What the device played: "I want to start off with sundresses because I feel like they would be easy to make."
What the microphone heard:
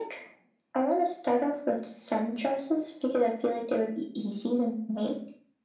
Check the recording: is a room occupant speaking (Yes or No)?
No